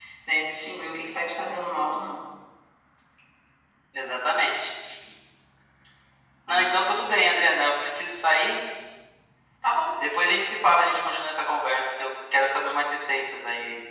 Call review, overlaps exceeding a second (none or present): none